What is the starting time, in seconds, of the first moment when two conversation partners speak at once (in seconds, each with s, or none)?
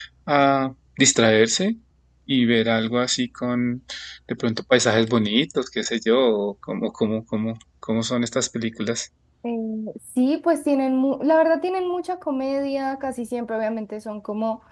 none